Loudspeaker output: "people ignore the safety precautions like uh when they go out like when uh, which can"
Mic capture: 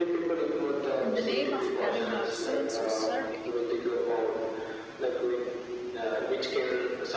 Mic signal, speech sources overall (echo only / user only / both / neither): both